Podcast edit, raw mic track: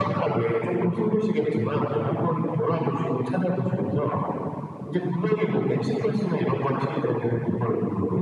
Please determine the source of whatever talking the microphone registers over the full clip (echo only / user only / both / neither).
echo only